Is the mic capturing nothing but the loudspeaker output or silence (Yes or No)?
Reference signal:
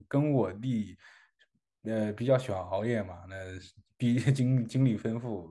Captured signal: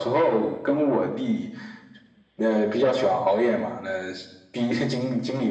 Yes